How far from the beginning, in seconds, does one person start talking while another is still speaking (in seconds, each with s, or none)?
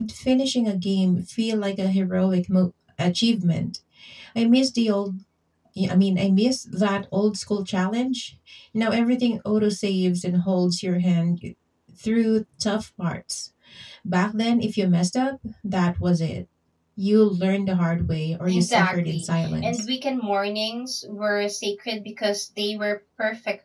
18.5 s